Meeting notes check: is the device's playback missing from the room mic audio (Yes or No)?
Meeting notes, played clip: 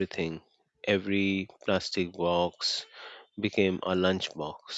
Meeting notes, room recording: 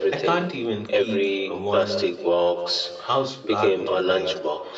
No